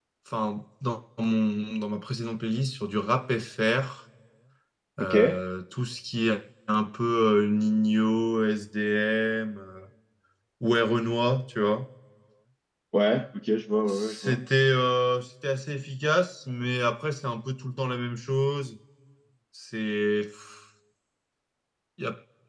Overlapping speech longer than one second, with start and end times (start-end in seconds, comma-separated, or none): none